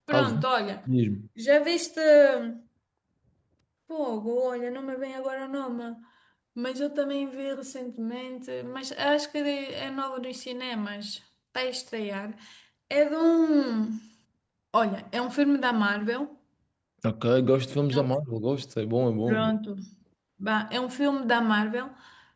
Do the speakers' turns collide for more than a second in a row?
No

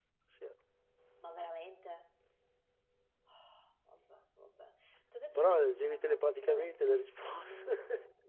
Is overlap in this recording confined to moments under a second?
No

